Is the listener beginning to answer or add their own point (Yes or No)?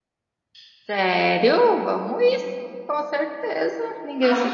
Yes